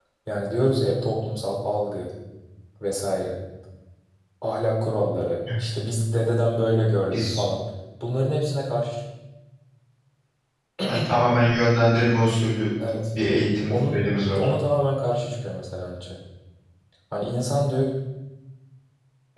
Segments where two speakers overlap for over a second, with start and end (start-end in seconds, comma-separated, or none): none